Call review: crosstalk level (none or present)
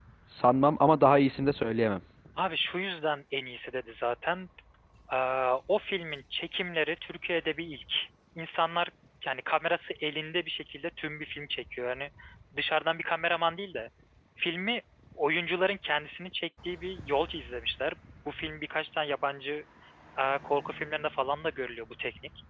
none